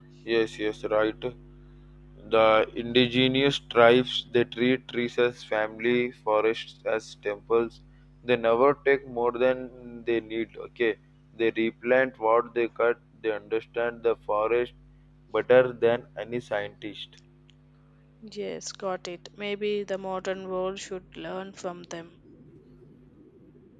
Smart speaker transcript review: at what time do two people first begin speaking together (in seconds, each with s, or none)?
none